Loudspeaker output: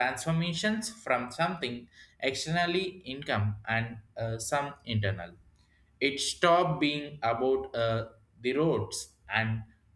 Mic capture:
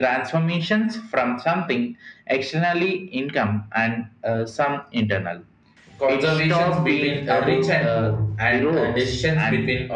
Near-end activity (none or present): present